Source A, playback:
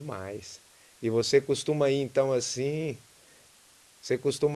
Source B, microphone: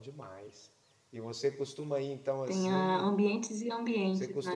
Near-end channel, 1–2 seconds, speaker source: echo only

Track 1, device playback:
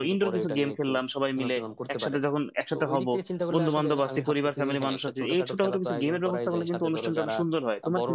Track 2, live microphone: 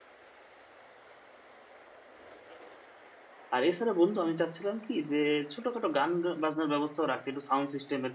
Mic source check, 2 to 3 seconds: neither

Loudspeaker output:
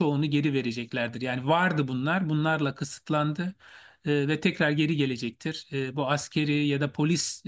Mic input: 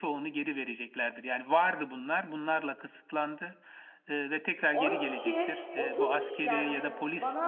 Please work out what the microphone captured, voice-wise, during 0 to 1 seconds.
echo only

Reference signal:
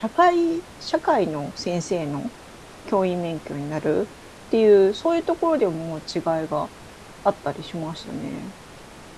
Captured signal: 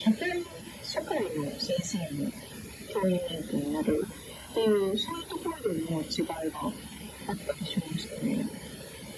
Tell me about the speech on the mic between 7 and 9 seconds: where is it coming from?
echo only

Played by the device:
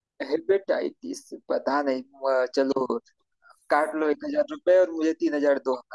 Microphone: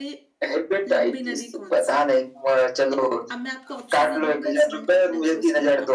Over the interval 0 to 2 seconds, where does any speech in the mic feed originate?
both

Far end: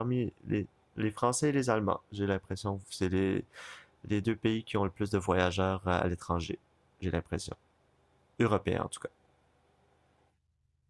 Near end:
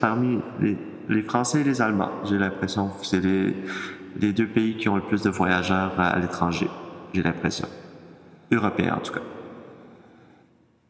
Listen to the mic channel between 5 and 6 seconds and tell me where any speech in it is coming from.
echo only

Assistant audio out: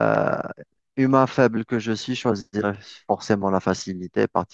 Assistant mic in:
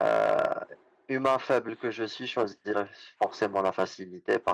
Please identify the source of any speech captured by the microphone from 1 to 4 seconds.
echo only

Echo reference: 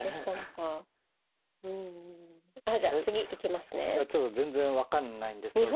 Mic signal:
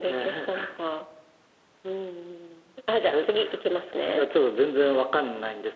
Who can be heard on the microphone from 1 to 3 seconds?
echo only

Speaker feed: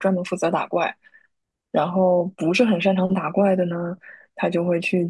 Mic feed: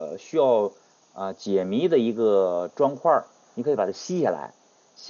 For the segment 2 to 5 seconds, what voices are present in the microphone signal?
user only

